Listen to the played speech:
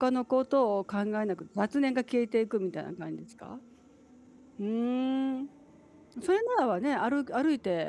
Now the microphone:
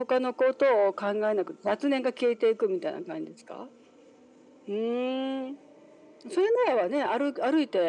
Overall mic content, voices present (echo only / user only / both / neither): echo only